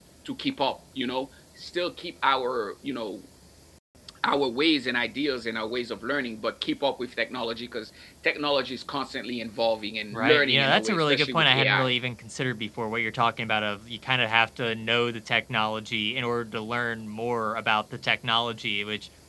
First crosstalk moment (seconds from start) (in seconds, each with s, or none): 10.1 s